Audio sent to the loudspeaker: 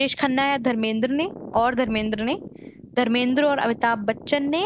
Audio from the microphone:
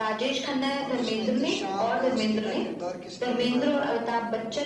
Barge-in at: 1 s

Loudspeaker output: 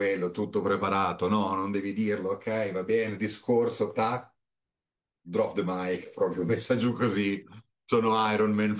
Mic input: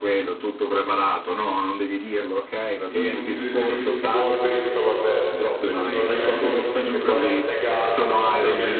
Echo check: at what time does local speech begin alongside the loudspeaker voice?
3 s

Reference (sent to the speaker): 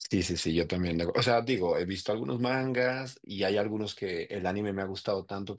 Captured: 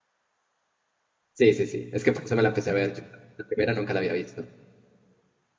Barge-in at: 1 s

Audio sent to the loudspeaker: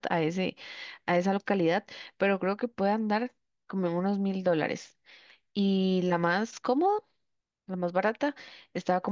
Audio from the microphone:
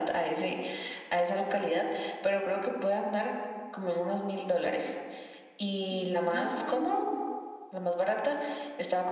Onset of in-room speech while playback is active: 6 s

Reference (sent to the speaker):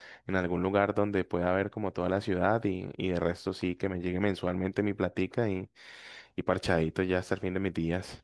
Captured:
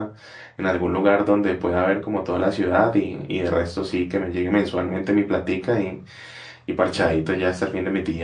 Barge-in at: none

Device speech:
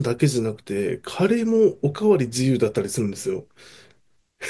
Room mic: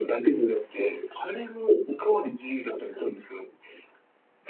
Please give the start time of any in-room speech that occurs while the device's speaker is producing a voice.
none

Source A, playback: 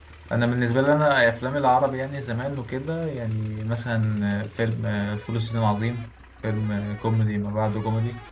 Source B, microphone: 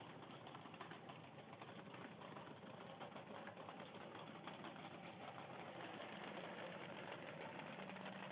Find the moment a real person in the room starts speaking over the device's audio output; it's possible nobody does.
none

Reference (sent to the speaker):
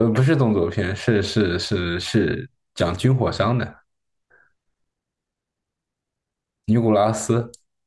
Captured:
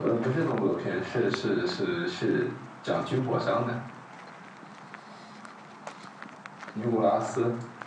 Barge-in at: none

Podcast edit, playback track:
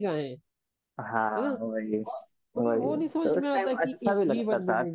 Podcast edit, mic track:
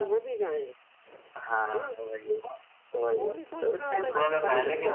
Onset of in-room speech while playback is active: 4 s

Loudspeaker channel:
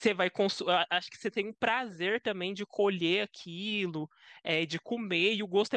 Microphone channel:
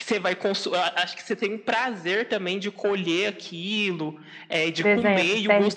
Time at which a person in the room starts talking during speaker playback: 5 s

